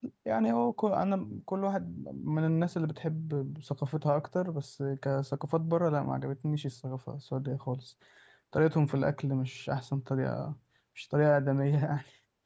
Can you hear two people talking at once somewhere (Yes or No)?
No